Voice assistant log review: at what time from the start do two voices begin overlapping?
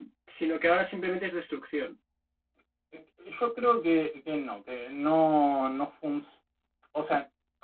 none

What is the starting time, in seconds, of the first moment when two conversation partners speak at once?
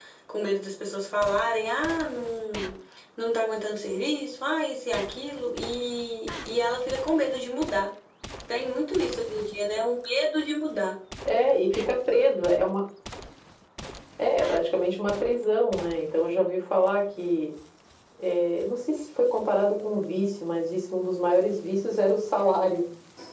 none

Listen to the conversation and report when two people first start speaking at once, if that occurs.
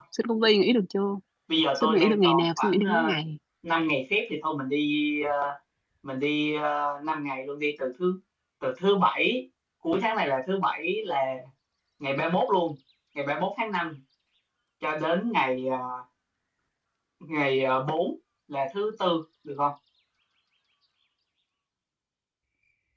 1.8 s

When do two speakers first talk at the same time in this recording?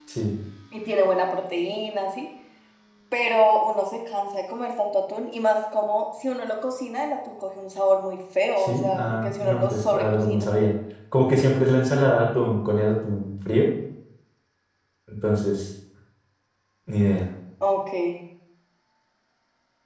8.6 s

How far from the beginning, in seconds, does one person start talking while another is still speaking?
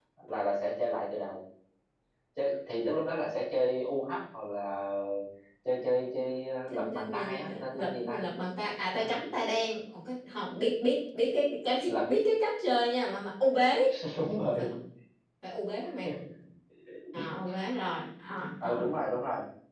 6.7 s

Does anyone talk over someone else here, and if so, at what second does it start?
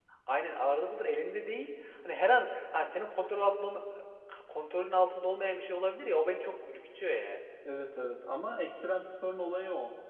none

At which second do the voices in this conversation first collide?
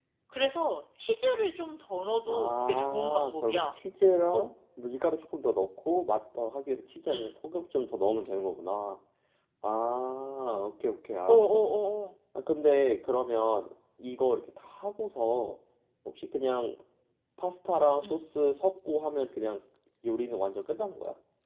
2.2 s

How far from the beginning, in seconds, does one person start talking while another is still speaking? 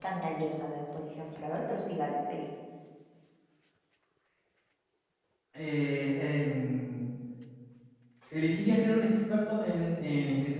none

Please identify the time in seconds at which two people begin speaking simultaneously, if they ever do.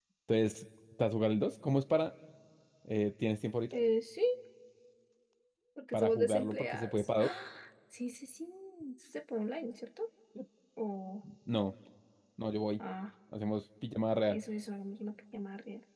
5.9 s

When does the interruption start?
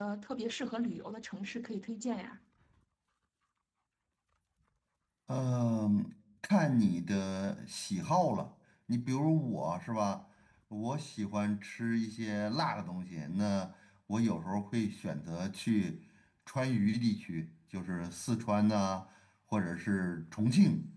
none

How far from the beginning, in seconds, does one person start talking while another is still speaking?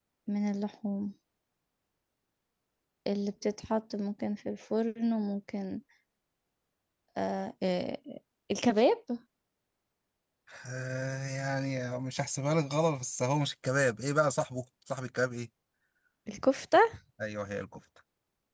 none

